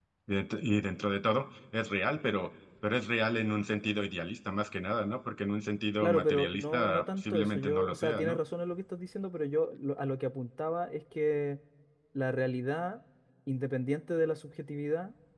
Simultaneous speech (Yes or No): Yes